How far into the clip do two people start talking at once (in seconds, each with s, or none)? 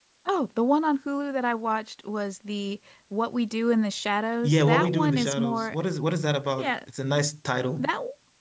4.4 s